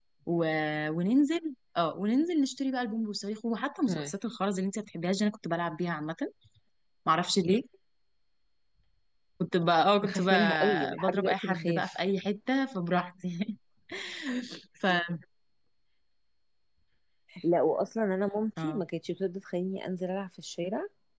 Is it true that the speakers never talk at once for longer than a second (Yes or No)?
No